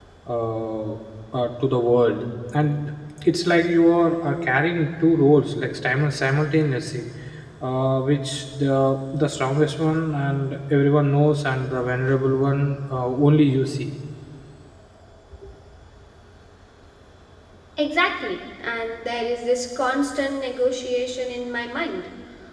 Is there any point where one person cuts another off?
No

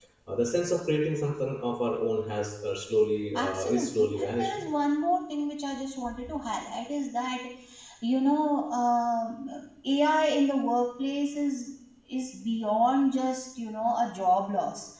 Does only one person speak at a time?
No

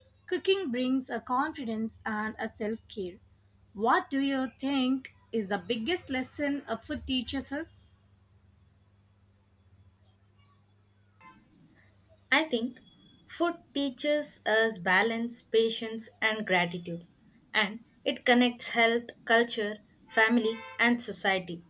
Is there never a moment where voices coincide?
Yes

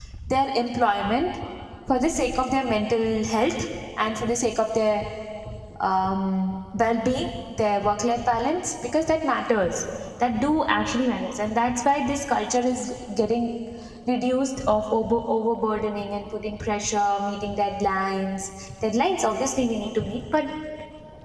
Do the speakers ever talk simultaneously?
No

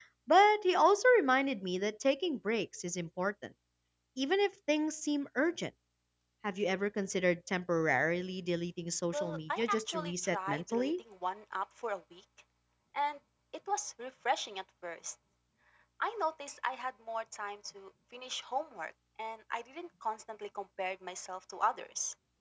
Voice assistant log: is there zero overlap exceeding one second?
No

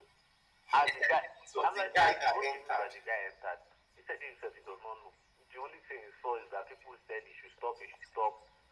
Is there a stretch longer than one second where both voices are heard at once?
Yes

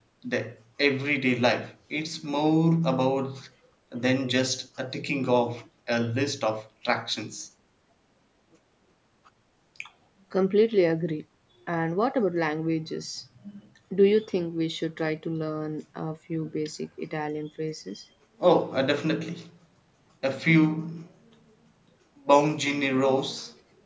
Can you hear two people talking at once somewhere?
No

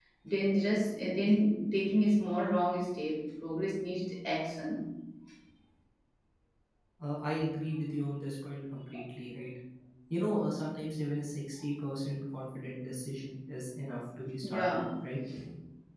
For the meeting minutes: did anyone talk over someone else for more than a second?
No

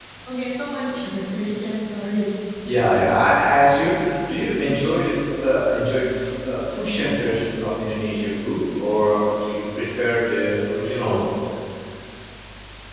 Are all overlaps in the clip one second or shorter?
Yes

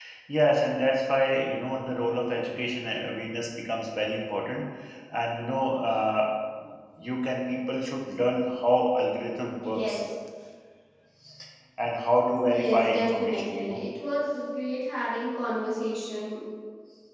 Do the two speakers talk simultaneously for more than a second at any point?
Yes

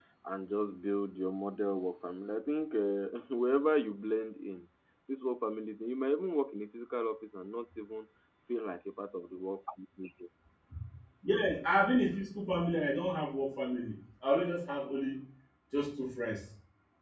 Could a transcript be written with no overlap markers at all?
Yes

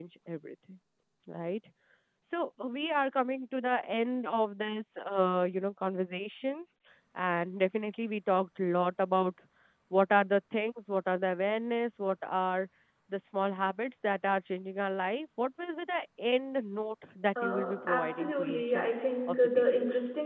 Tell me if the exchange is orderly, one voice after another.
No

